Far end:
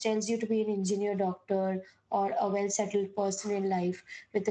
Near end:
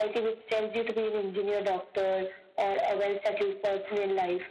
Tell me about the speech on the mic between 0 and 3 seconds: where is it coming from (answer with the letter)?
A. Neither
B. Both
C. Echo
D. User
C